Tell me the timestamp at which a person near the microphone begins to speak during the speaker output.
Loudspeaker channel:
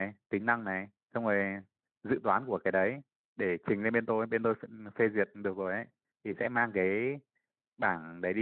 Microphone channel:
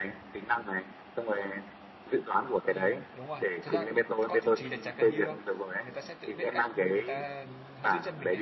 3 s

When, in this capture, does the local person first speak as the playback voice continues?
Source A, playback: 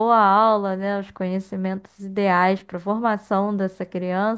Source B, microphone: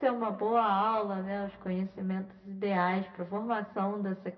none

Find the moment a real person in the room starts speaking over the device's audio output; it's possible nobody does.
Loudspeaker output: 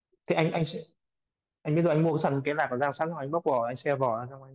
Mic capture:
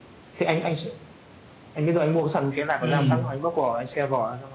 3 s

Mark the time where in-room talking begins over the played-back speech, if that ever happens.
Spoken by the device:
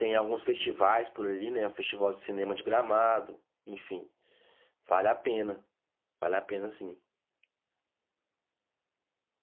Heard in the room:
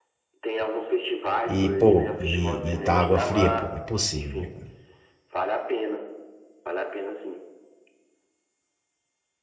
1 s

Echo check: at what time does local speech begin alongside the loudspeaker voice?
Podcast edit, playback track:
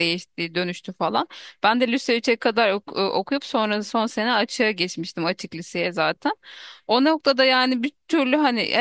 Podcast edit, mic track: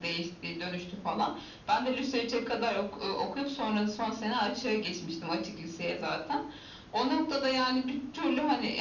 none

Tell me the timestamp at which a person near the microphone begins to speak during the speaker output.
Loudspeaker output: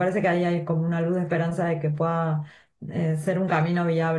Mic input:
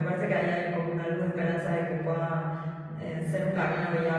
none

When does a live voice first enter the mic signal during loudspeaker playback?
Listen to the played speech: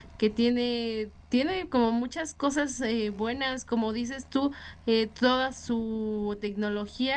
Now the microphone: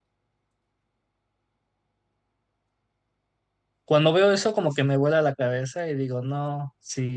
4 s

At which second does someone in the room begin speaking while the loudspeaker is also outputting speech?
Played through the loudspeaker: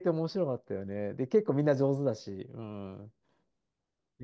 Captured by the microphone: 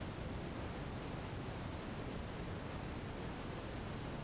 none

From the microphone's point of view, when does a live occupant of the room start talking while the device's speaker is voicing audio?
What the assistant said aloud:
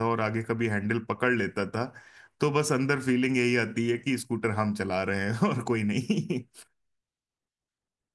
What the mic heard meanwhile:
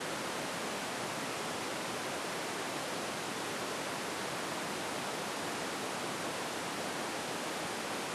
none

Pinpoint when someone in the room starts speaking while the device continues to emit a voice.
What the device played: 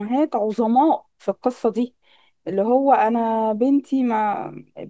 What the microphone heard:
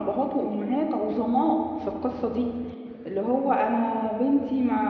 none

